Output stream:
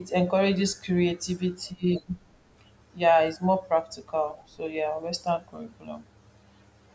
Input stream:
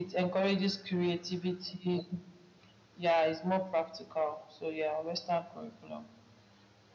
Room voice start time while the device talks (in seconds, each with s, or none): none